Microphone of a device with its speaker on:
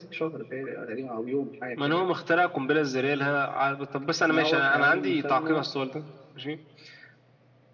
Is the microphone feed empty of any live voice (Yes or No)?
Yes